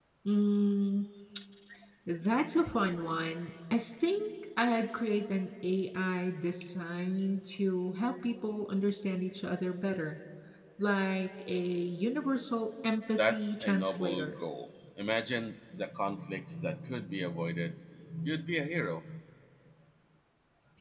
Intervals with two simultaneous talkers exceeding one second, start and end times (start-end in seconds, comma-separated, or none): 13.2-14.4